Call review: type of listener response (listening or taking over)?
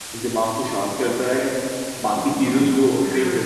listening